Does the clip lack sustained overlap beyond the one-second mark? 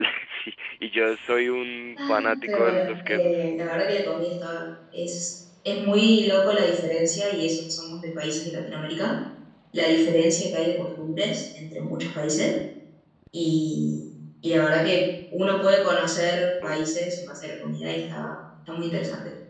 No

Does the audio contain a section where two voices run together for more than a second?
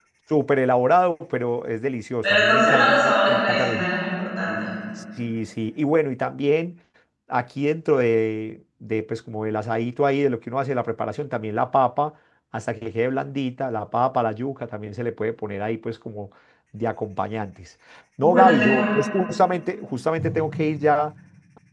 Yes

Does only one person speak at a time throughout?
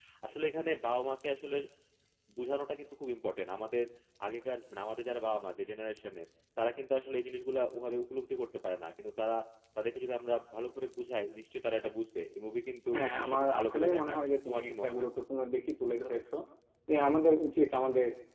No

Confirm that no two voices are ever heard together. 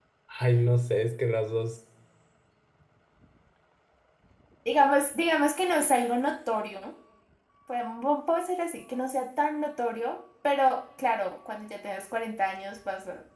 Yes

